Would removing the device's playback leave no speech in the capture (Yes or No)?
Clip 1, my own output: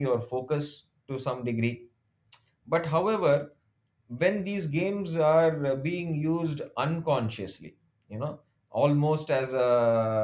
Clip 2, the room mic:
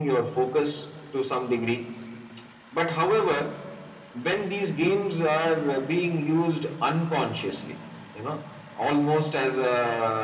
Yes